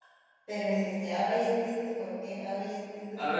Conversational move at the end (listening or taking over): taking over